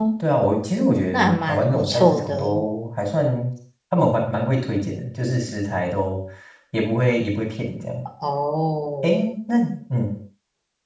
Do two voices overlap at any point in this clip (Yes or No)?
Yes